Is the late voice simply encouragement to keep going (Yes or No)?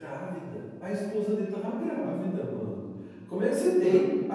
Yes